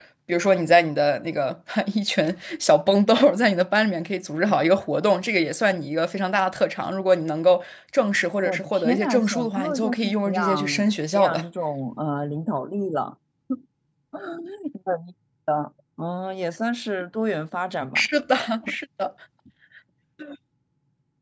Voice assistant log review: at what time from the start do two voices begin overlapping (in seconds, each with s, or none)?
8.4 s